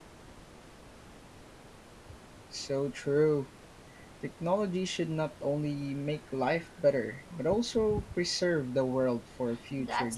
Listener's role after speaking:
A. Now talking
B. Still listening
A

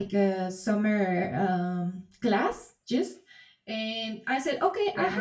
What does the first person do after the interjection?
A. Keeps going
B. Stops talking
A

